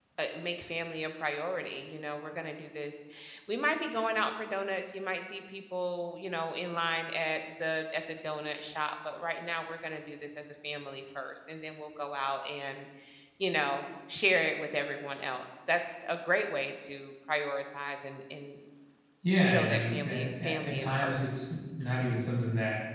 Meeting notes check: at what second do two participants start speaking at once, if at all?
19.4 s

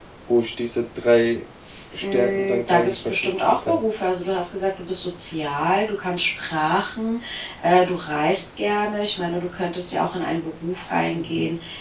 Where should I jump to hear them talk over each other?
2.0 s

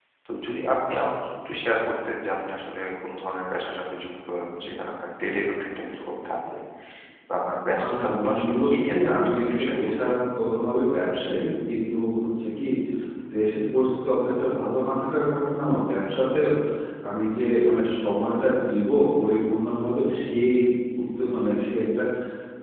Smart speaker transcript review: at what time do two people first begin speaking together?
7.8 s

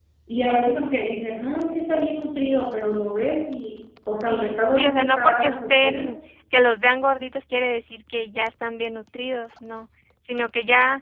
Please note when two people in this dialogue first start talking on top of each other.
4.3 s

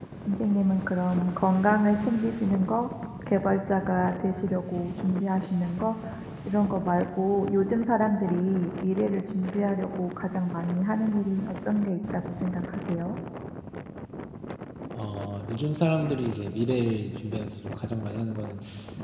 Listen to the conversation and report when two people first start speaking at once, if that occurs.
none

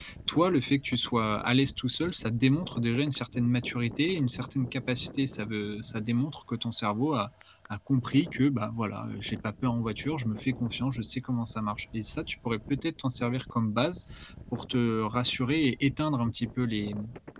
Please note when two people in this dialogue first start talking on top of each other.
none

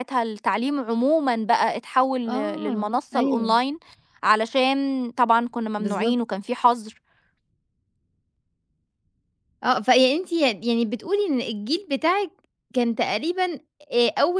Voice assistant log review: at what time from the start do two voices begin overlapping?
2.3 s

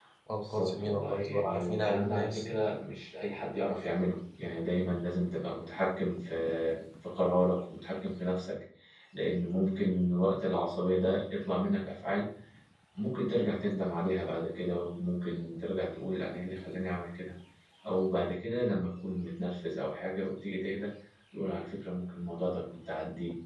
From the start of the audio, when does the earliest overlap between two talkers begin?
0.5 s

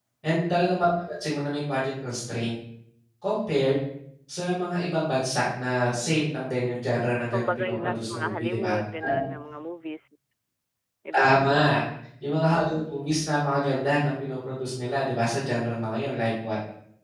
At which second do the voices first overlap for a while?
7.3 s

